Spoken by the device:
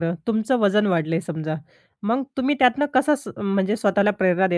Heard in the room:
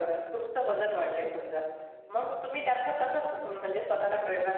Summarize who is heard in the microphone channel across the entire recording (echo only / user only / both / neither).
echo only